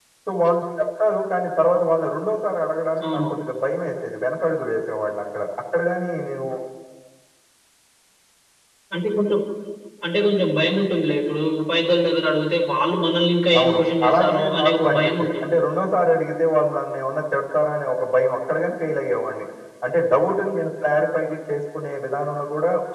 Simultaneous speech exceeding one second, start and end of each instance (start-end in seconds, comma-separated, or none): 13.6-15.5